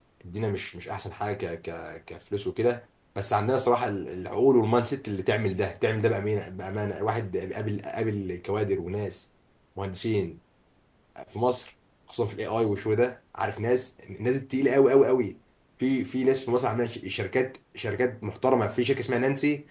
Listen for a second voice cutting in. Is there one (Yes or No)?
No